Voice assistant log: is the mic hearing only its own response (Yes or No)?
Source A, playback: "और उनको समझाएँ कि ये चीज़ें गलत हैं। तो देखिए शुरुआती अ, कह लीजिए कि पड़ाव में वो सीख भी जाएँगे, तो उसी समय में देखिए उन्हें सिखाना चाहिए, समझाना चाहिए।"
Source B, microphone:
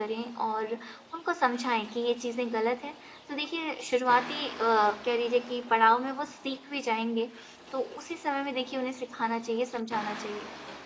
Yes